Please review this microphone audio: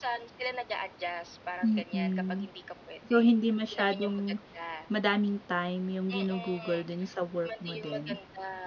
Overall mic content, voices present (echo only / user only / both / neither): both